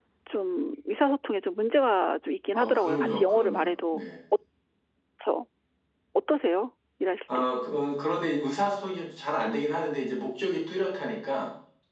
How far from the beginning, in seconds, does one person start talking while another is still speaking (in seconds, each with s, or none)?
2.5 s